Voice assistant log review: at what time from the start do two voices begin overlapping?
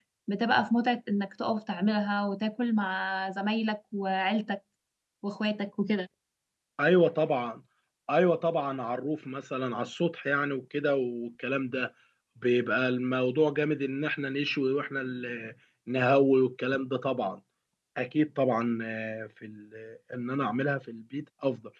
none

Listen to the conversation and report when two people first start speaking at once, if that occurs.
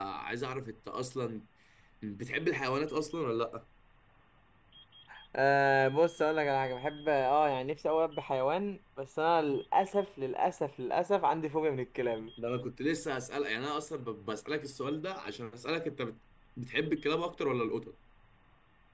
none

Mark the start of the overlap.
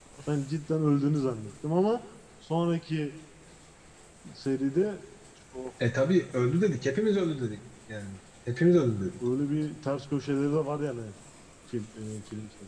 none

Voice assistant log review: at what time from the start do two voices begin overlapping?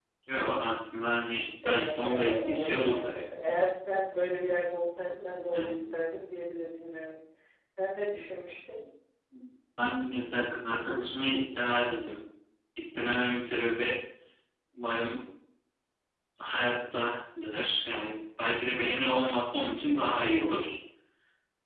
2 s

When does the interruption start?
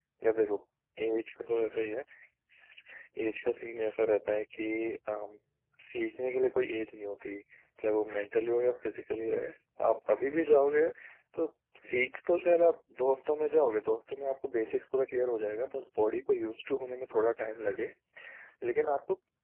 none

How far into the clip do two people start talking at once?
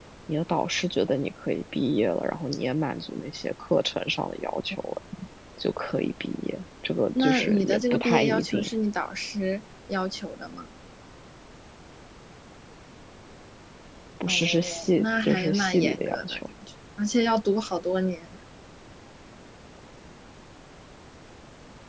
7 s

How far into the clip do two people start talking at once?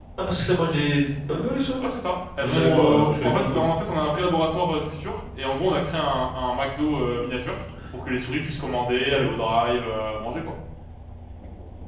2 s

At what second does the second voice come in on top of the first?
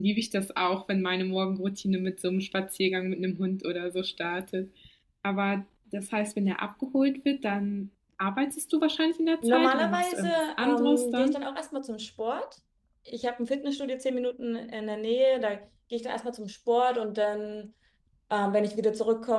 9 s

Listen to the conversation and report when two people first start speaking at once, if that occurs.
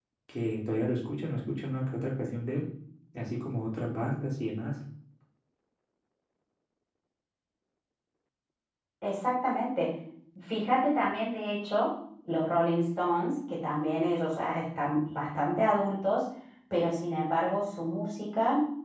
none

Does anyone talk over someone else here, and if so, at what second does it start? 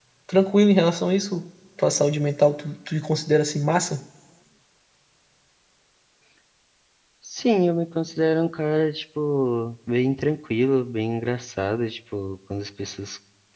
none

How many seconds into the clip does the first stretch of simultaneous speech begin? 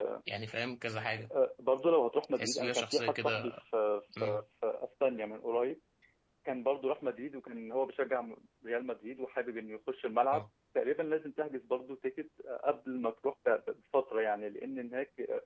2 s

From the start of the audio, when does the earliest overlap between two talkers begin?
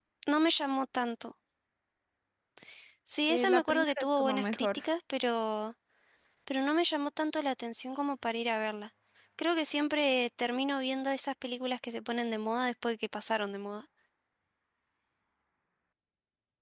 3 s

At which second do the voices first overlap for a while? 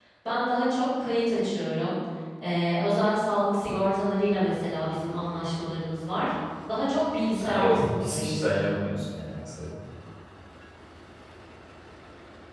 7 s

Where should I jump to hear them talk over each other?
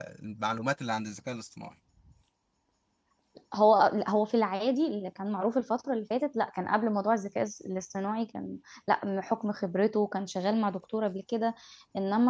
none

